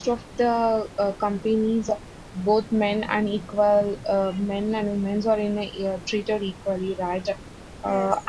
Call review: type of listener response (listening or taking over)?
listening